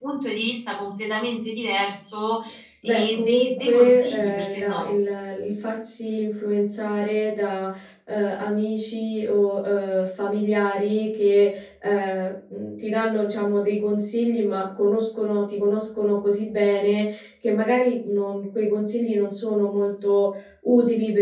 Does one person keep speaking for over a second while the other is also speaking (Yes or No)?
Yes